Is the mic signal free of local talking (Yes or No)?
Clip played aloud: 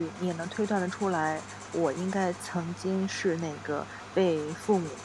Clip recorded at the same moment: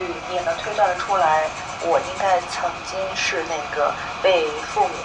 Yes